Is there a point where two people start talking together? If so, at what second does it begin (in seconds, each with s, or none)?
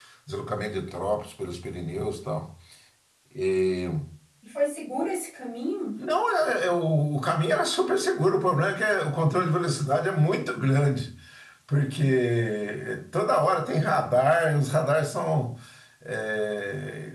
none